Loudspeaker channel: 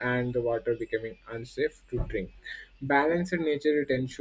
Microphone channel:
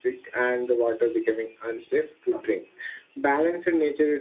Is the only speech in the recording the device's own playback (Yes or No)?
Yes